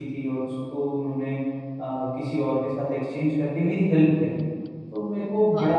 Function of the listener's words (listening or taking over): listening